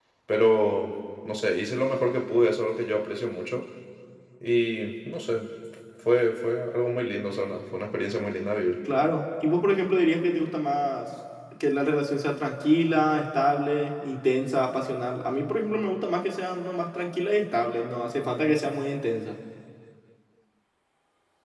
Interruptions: none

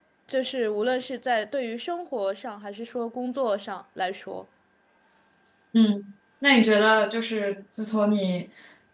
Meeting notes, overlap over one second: none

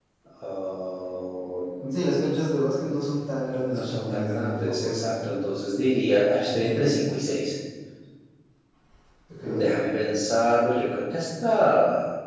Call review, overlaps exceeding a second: present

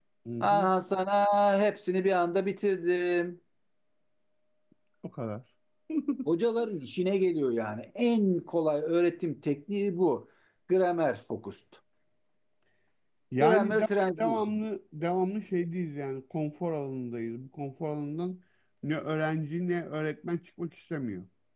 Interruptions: present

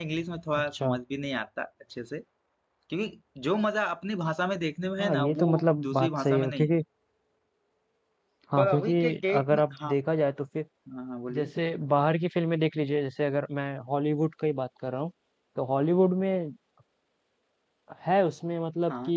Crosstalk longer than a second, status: present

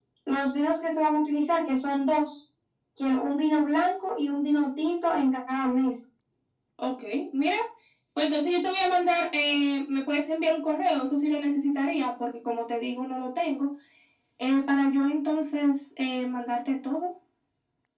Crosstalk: none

